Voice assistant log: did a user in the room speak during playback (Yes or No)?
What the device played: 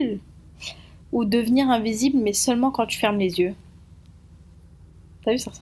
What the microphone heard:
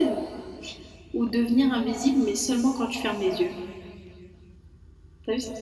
No